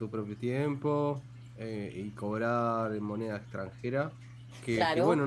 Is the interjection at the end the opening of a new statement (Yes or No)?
No